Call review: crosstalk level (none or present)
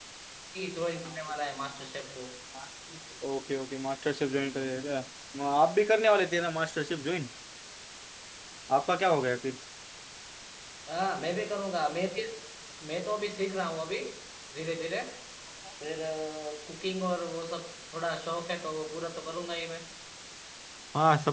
none